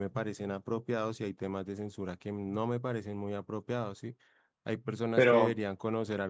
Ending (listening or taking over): listening